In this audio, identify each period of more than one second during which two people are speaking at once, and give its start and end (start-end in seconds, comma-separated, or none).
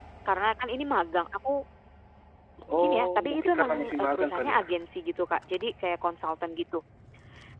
2.7-4.6